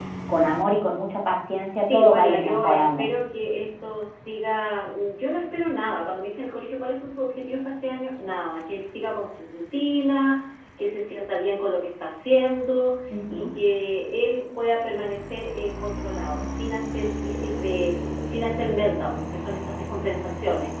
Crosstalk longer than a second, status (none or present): present